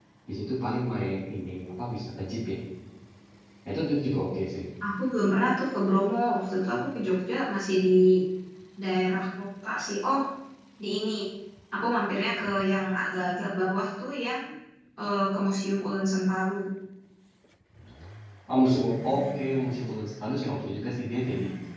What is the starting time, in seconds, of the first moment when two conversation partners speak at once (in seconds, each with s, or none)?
none